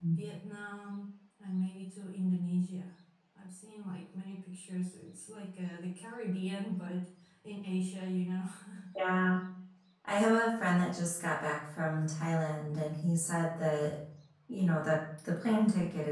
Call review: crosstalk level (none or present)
none